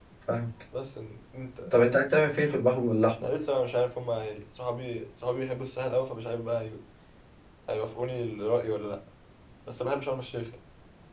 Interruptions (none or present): none